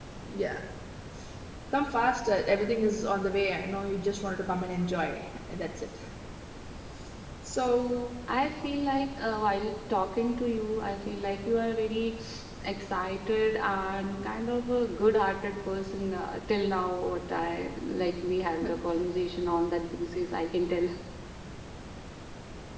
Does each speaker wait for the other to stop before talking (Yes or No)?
Yes